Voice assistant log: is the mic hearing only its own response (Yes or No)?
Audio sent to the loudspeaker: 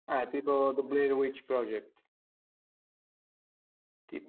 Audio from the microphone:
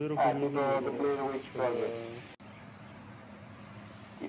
No